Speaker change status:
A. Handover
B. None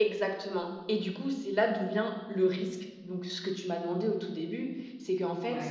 B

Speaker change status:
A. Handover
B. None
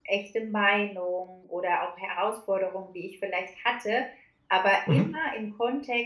B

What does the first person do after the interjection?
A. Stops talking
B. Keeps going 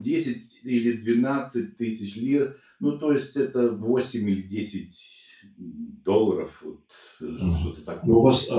A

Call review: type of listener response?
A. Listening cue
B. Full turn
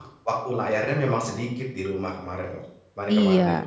B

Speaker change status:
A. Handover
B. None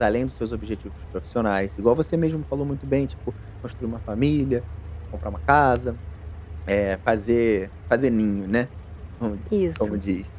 B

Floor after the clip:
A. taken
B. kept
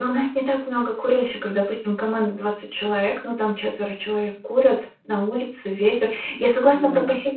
B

